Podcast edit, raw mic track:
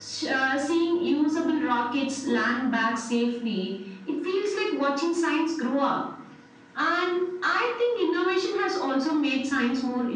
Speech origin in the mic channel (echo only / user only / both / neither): echo only